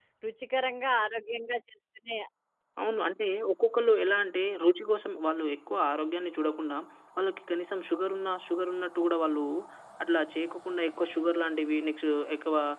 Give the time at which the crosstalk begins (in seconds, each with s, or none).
none